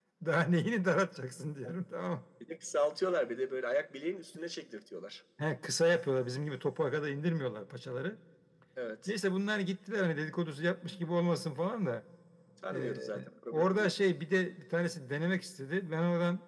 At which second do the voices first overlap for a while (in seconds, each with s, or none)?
12.7 s